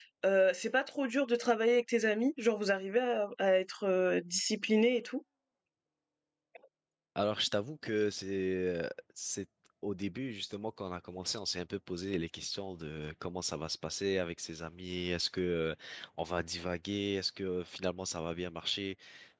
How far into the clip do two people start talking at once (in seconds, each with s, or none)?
none